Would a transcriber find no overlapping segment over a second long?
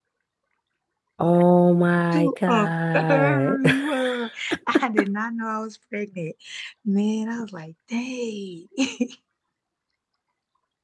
No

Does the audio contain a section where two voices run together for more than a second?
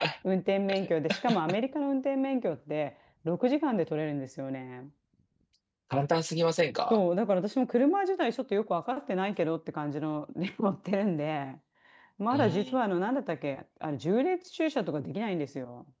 No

